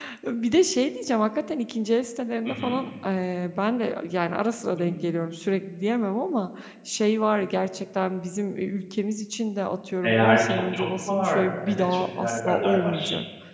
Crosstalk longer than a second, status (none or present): present